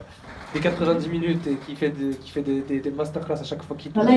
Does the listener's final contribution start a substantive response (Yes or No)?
Yes